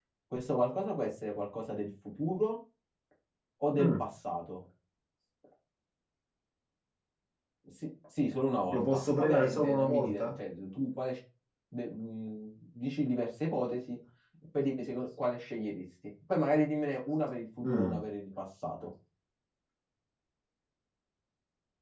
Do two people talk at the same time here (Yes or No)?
Yes